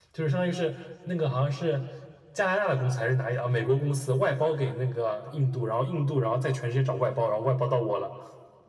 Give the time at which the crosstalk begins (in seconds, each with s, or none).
none